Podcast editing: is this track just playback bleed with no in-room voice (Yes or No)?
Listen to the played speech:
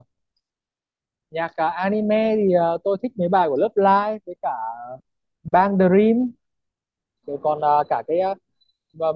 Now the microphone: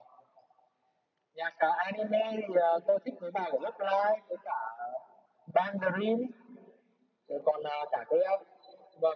Yes